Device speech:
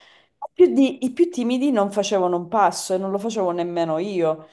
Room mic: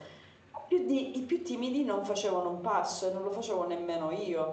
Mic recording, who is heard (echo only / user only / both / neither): echo only